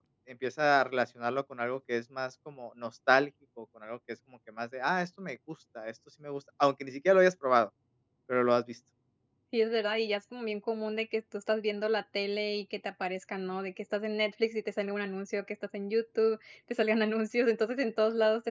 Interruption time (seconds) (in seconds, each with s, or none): none